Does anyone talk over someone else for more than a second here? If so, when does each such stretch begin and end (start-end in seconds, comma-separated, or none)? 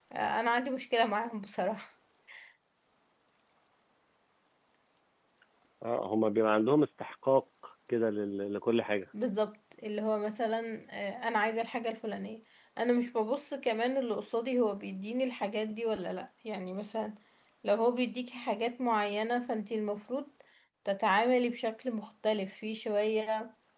none